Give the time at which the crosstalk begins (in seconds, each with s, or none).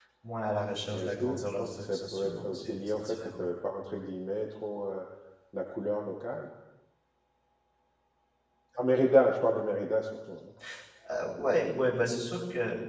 0.9 s